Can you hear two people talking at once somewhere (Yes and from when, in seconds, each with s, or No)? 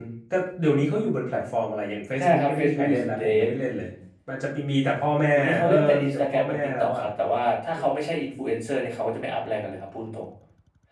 Yes, from 2.2 s